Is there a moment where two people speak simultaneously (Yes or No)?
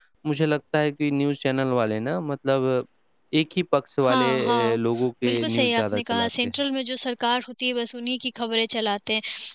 Yes